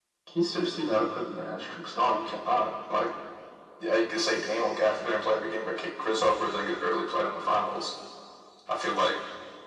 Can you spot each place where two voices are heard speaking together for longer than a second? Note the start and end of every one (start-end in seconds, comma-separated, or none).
none